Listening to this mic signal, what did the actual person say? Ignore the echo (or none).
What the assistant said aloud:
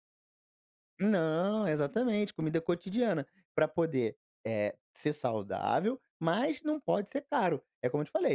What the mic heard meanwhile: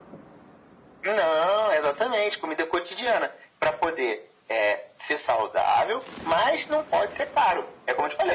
none